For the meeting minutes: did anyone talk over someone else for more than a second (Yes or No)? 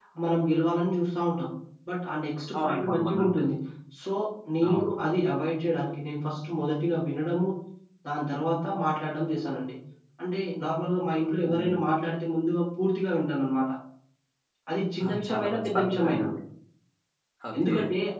Yes